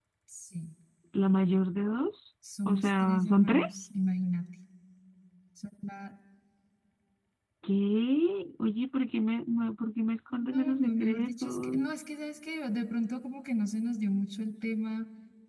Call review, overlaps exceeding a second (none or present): present